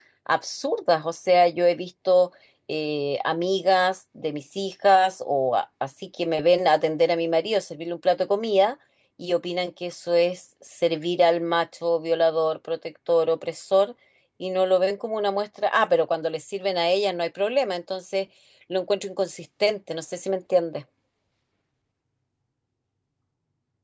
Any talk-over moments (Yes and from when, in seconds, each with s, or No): No